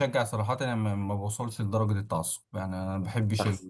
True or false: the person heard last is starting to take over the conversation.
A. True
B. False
B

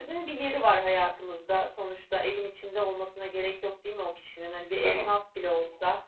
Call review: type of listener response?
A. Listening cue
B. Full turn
A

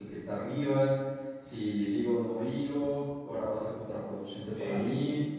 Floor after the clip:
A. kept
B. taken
A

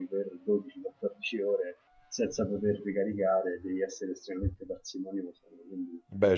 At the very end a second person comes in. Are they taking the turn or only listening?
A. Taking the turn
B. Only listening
B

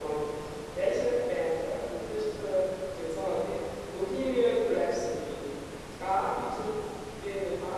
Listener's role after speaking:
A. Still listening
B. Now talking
A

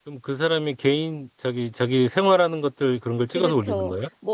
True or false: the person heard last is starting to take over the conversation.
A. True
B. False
A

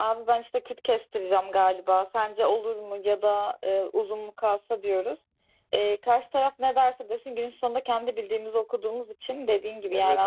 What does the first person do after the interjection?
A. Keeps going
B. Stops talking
B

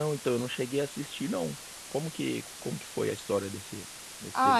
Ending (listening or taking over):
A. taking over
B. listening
A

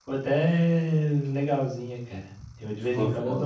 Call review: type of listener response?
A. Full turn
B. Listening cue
B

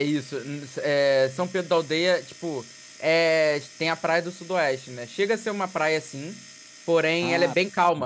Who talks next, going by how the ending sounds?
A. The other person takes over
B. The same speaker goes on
B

